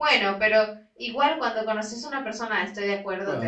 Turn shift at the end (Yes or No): Yes